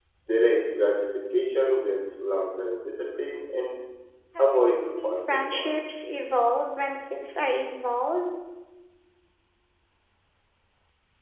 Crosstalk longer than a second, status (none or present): present